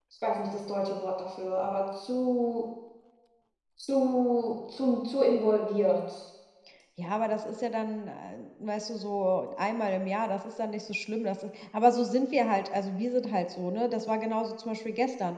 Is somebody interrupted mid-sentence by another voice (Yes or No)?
No